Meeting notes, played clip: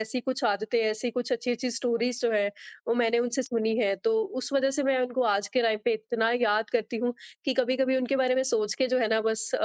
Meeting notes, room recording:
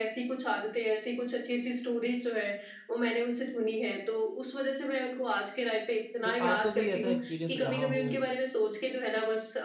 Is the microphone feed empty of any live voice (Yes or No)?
No